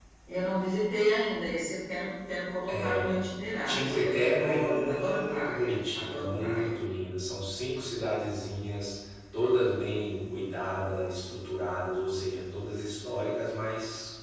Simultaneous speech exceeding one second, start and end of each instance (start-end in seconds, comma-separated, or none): 3.6-6.7